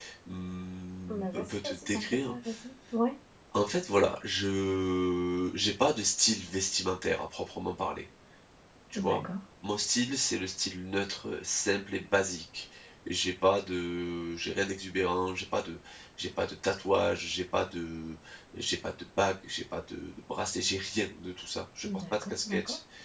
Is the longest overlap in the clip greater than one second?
Yes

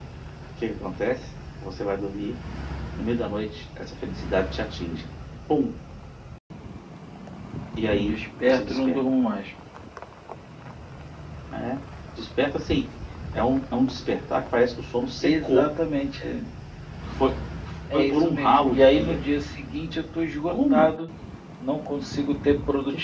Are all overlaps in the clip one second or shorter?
No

